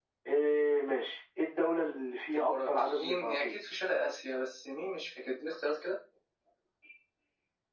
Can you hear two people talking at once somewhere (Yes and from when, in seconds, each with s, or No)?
Yes, from 2.3 s